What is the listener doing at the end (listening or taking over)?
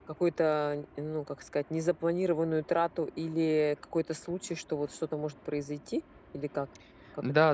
taking over